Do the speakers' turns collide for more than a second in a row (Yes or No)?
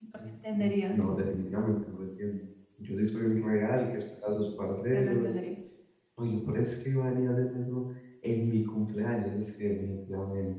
No